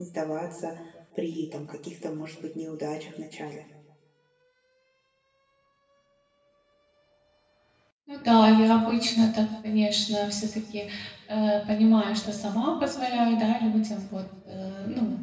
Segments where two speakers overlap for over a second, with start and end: none

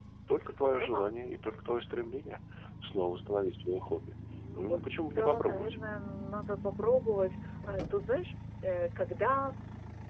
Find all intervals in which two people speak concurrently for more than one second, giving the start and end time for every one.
4.5-5.8

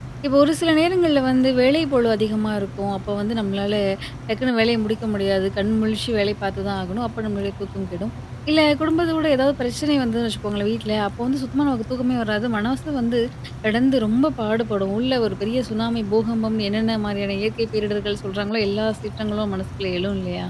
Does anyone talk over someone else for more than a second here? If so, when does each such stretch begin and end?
none

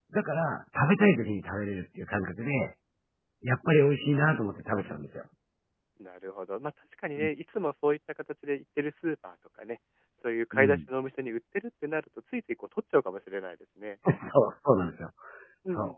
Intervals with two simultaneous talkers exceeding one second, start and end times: none

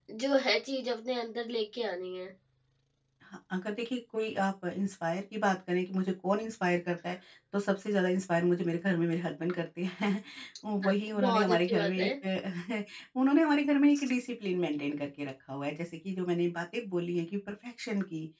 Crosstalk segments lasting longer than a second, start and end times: 10.9-12.1

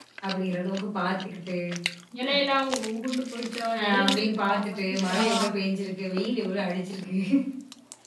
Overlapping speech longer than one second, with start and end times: 3.8-5.2

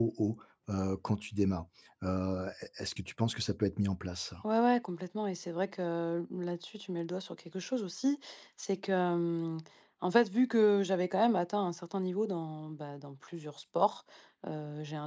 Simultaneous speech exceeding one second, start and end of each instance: none

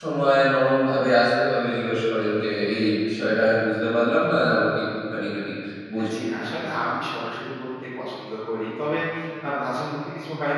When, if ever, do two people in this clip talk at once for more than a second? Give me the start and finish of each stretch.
none

